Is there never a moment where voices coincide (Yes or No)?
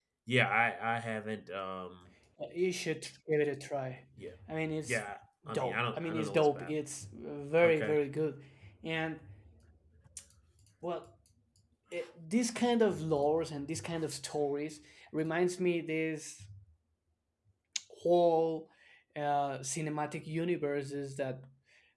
No